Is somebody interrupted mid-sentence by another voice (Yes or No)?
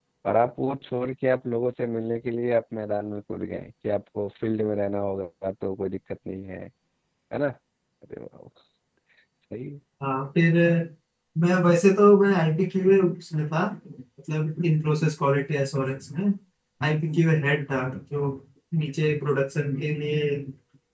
No